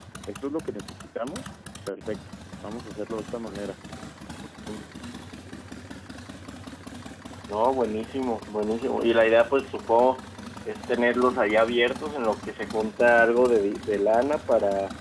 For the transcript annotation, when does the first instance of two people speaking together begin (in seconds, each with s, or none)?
none